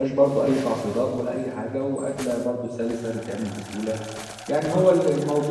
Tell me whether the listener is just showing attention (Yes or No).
Yes